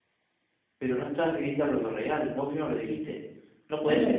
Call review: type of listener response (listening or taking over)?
taking over